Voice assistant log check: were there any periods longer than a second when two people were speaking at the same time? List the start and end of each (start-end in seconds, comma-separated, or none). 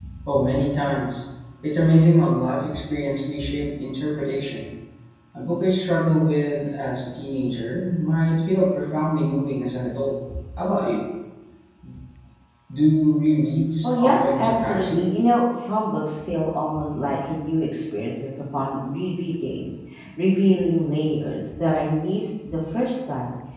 13.8-15.1